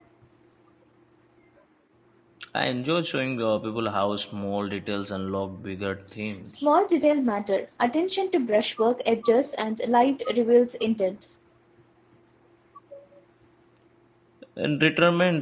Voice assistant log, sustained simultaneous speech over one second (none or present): none